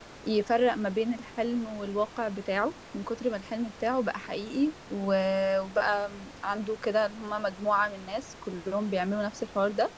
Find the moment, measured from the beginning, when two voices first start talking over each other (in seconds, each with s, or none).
none